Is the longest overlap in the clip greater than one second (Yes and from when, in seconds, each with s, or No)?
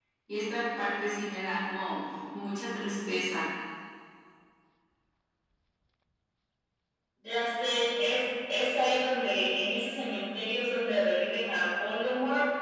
No